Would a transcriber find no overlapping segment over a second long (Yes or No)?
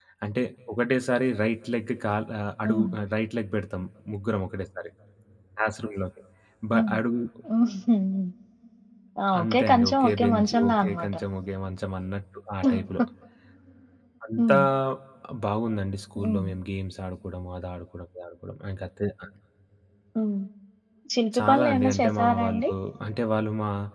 No